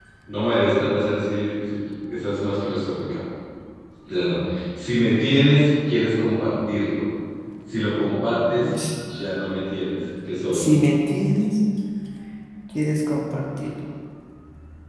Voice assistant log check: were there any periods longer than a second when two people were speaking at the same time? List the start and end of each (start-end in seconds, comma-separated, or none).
none